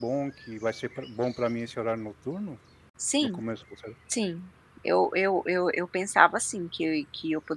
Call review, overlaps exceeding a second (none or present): none